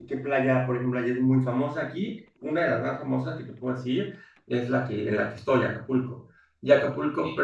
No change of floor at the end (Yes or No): Yes